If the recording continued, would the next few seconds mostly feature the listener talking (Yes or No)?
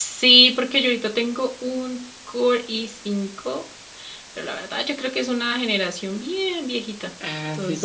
Yes